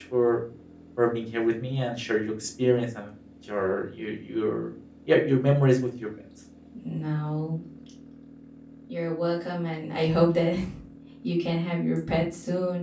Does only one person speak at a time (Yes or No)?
Yes